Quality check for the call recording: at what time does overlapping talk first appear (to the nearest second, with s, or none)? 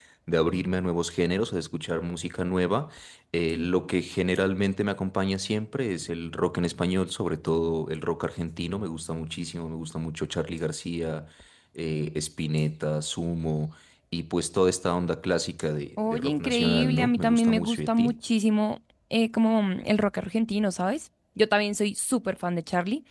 16 s